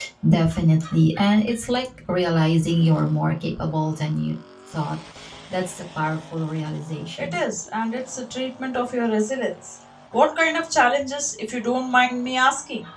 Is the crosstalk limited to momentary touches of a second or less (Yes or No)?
Yes